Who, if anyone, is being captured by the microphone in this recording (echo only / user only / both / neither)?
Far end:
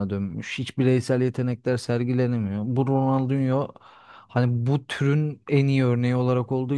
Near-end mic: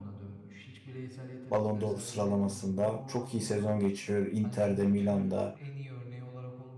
both